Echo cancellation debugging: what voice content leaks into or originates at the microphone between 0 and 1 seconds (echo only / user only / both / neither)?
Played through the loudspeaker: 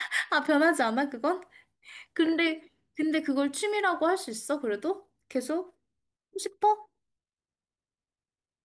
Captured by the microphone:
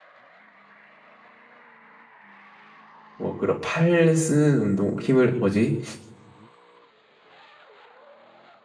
neither